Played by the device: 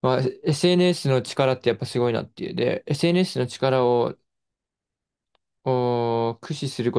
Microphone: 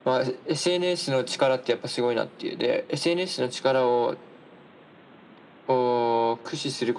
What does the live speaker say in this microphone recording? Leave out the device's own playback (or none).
none